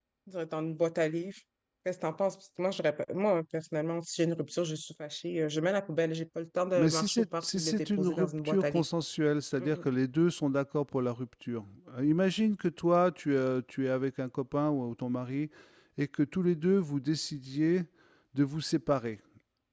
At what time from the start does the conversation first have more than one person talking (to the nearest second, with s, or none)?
7 s